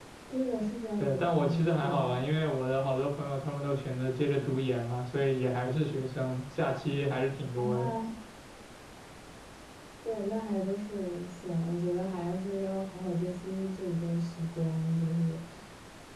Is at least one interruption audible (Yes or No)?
Yes